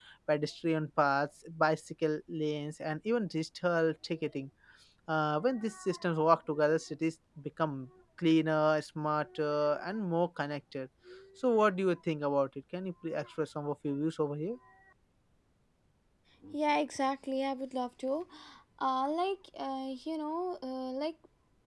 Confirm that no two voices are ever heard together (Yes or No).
Yes